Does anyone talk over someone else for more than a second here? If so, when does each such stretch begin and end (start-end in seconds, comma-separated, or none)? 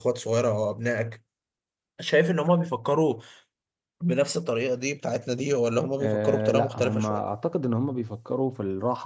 6.0-7.2